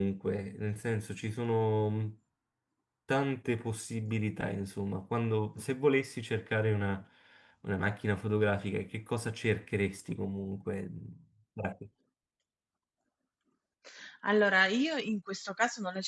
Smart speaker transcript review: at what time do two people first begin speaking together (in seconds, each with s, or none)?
none